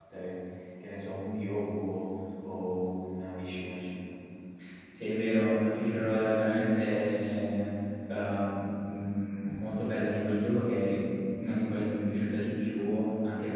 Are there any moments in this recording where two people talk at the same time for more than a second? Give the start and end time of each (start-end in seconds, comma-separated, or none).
none